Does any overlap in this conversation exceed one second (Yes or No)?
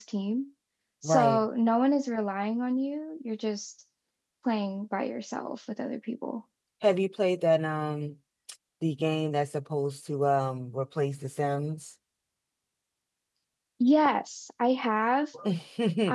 No